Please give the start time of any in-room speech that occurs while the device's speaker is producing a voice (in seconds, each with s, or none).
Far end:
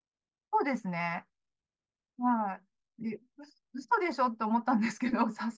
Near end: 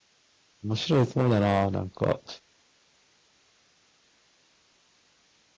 0.7 s